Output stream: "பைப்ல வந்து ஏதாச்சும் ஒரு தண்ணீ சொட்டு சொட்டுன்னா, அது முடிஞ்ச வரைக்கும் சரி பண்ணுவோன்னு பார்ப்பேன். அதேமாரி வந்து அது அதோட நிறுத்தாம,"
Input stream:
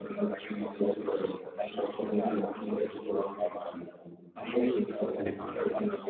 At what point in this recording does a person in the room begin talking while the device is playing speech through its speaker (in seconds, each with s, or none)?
5.2 s